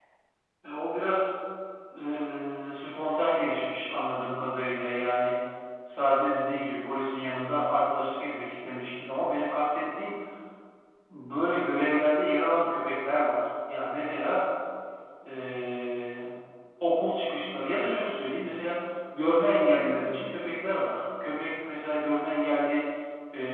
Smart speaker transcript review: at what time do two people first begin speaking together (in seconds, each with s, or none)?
none